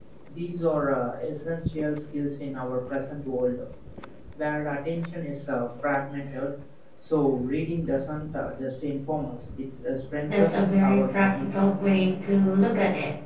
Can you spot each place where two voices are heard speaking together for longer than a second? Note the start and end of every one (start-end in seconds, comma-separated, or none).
10.3-11.6